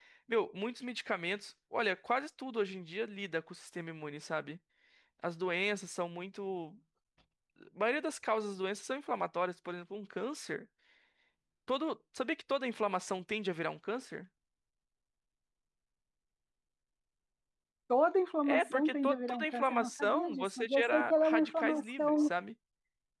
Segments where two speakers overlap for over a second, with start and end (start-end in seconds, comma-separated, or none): 18.4-22.3